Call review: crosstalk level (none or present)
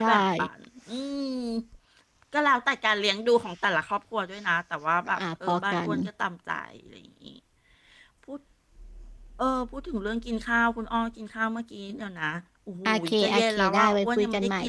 present